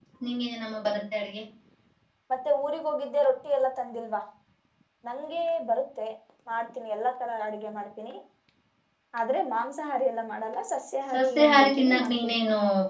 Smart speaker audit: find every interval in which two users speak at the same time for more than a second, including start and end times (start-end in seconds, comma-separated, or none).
11.1-12.3